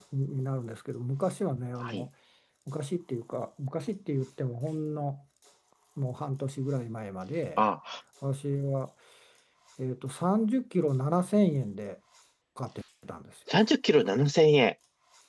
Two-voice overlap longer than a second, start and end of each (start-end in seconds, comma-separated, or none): none